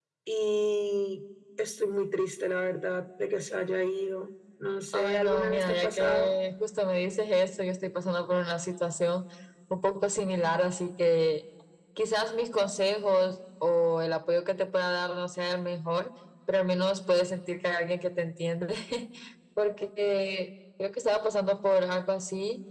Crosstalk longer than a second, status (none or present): present